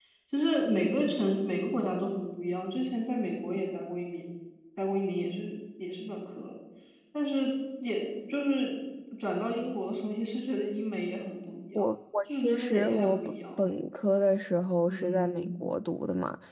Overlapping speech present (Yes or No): Yes